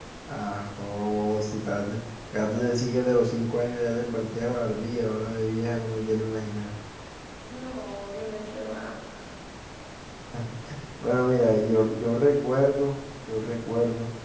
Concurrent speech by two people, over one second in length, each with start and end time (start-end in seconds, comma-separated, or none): none